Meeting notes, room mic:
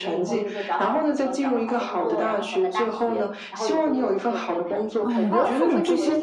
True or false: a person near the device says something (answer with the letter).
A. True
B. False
A